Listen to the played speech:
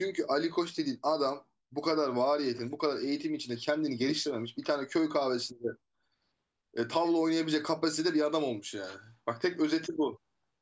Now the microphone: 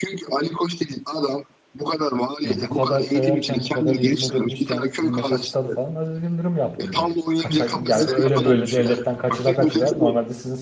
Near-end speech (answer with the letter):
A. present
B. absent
A